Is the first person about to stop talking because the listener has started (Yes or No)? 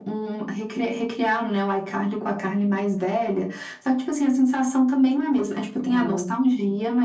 No